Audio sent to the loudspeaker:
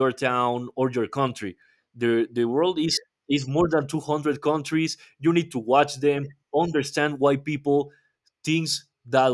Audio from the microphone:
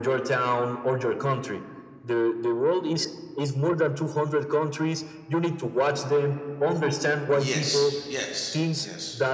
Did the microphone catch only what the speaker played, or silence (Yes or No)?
No